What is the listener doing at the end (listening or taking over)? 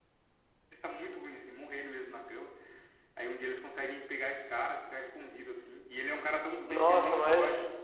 taking over